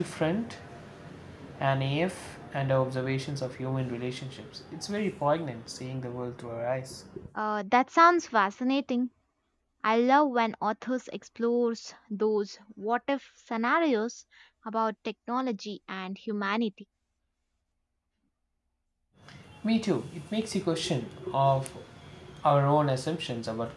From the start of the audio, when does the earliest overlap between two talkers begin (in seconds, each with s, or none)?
none